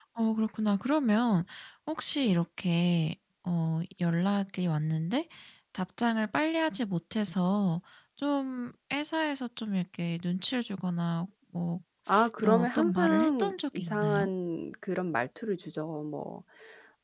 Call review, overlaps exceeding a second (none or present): present